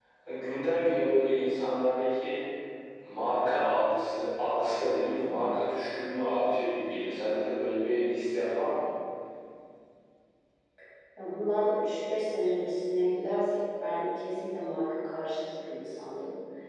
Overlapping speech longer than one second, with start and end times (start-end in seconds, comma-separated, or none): none